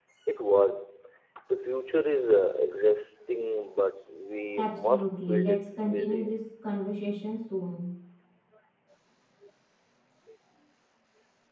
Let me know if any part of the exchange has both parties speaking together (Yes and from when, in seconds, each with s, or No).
Yes, from 4.5 s